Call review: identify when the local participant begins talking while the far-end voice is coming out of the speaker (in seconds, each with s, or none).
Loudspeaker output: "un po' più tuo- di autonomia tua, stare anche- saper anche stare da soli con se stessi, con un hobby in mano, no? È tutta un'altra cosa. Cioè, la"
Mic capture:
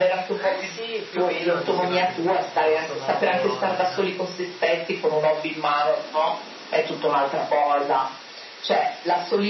0.3 s